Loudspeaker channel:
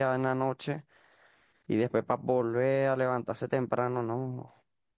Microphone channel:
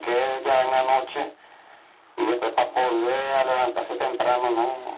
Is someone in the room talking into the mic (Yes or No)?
No